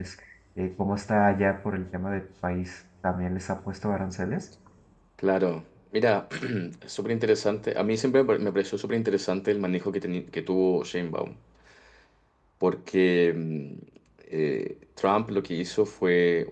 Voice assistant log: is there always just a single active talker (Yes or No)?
Yes